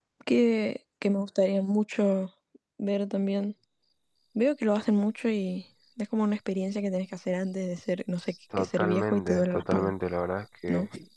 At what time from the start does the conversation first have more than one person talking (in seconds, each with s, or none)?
8.5 s